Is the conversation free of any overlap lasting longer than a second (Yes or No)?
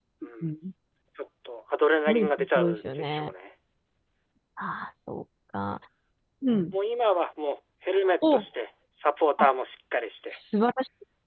No